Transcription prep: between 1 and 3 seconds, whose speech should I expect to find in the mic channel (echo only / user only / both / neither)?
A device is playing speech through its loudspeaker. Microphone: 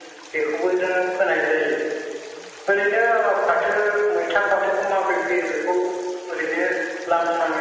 echo only